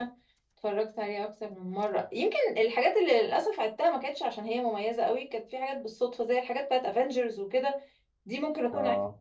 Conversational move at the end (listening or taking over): listening